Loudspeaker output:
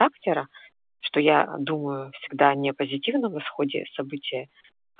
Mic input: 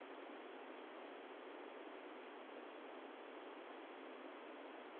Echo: none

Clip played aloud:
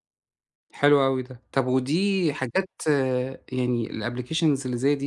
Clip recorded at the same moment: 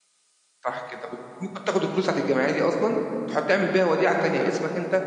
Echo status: none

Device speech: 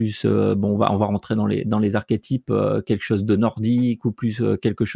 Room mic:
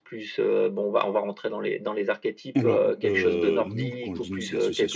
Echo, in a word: present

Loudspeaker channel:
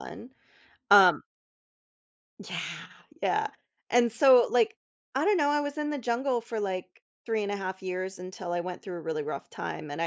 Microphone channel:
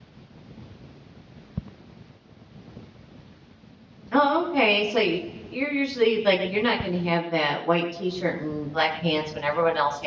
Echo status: none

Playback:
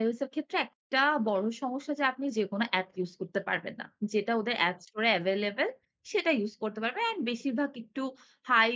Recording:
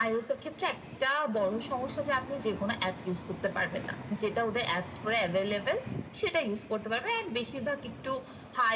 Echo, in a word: present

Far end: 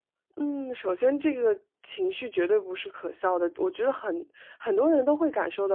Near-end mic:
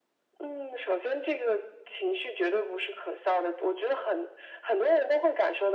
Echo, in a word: present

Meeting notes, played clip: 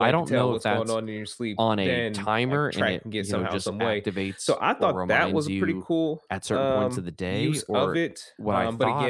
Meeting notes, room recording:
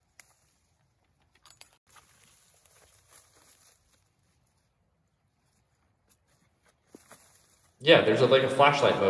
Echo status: none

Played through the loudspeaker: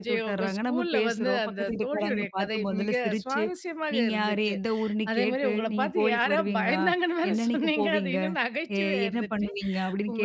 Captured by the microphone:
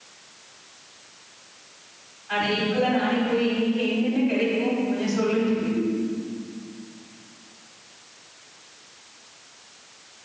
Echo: none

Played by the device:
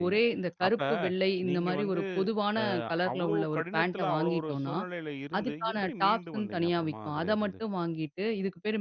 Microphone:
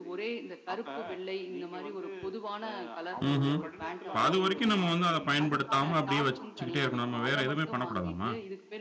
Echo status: present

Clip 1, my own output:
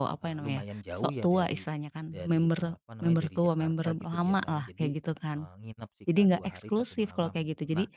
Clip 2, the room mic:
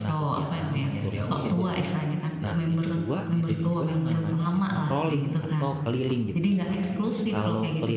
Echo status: present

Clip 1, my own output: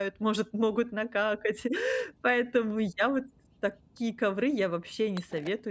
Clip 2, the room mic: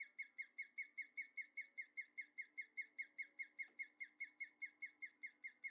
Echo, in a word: none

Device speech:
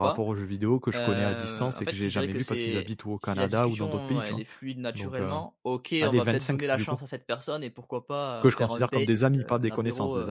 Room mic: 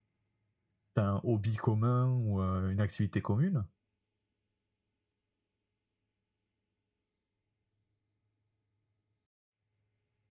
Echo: none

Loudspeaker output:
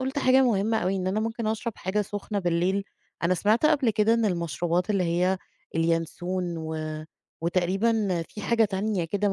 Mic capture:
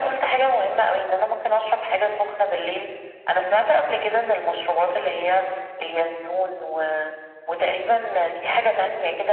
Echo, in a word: present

